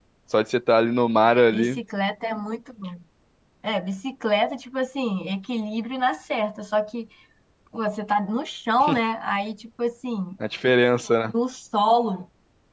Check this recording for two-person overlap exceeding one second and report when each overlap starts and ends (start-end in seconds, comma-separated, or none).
none